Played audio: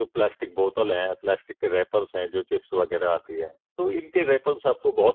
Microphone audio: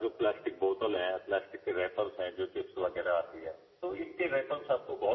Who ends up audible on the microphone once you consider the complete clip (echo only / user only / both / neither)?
echo only